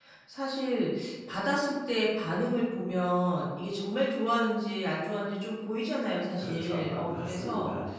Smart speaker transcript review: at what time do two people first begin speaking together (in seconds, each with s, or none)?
6.4 s